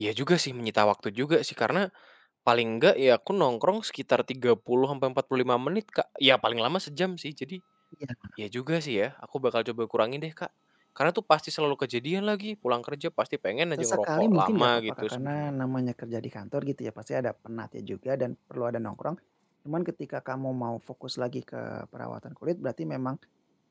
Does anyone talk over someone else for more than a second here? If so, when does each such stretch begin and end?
13.8-15.5

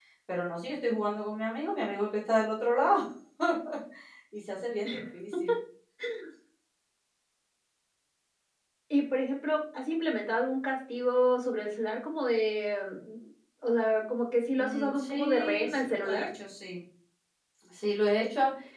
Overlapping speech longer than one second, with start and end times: 14.6-16.3

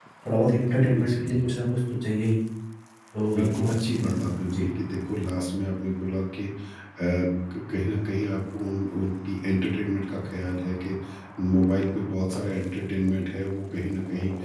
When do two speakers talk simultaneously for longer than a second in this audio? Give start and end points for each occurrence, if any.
3.3-4.7

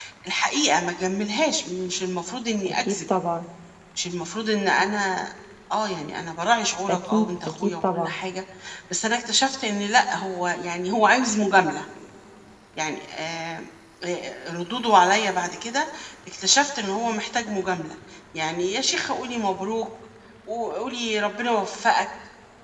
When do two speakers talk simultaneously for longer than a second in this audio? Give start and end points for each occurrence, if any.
6.9-8.2

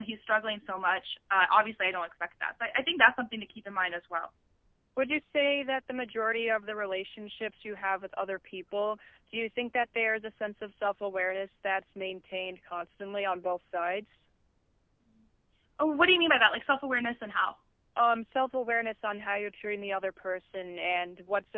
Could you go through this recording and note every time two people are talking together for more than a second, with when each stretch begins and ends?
none

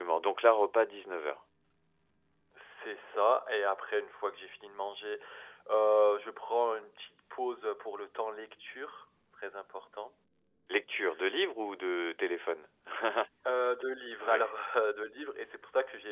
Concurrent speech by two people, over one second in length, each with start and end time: none

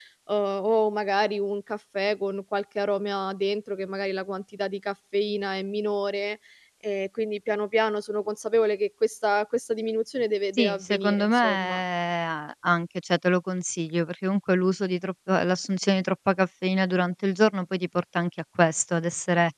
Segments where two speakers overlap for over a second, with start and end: 10.5-11.8

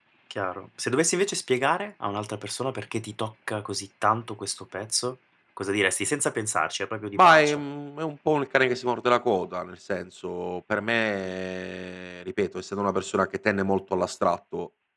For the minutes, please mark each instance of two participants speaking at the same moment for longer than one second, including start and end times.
none

